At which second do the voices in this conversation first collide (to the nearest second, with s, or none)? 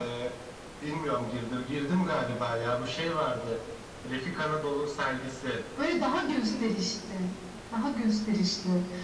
none